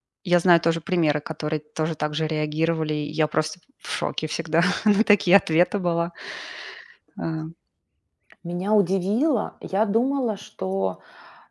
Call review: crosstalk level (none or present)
none